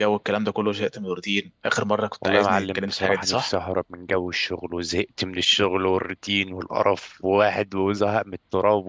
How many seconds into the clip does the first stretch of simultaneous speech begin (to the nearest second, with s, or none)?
2 s